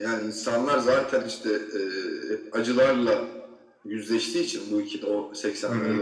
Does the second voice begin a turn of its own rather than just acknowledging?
No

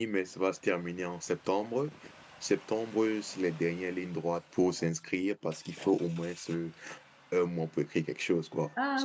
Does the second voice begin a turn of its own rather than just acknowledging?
Yes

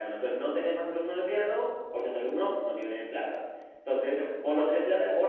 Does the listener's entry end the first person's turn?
No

